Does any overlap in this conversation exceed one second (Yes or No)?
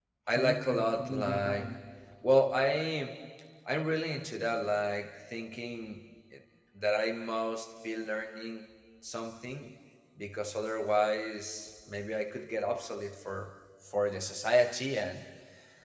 Yes